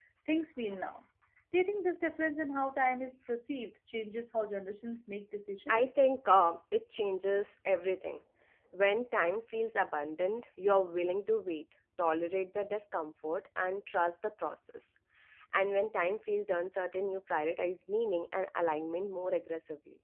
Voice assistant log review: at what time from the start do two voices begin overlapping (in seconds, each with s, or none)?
none